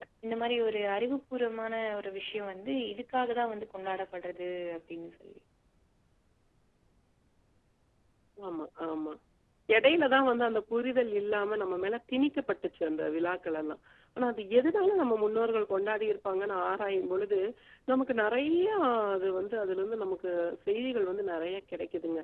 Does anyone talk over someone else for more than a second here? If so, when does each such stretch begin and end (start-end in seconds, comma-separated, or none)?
none